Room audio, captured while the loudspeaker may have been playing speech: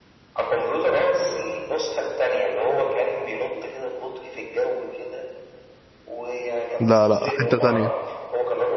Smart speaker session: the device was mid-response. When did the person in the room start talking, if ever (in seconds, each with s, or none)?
6.8 s